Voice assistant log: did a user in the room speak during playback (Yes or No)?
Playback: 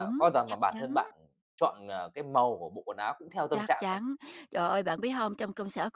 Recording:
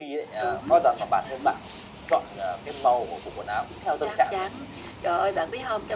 No